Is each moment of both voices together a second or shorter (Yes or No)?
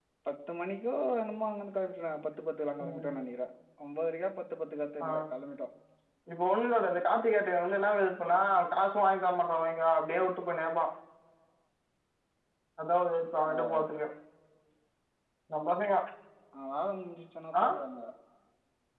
Yes